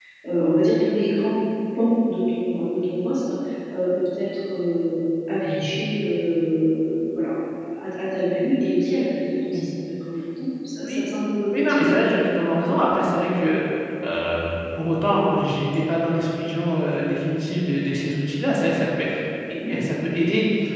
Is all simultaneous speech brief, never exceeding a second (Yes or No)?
Yes